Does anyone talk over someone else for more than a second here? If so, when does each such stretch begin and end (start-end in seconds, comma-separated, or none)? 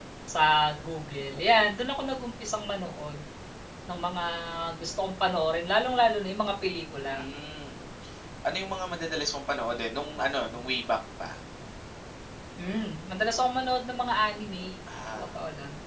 none